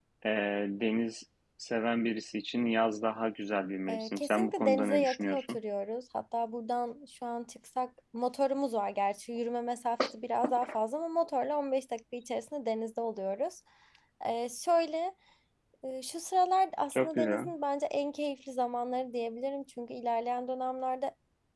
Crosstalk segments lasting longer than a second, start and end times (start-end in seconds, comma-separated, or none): 3.9-5.6